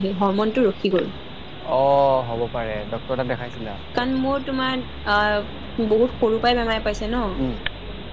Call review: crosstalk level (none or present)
none